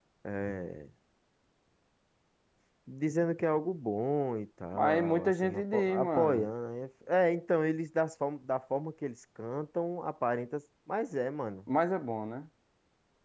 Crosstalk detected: Yes, from 4.7 s

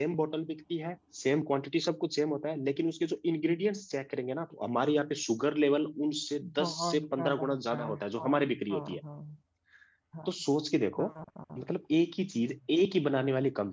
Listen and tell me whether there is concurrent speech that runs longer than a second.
Yes, from 6.4 s

